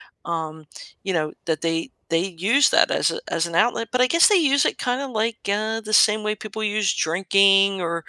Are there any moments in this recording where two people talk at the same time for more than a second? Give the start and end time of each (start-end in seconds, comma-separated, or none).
none